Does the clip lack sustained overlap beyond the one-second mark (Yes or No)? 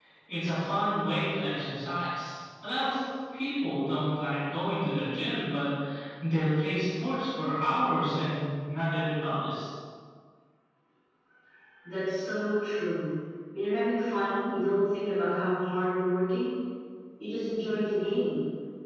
Yes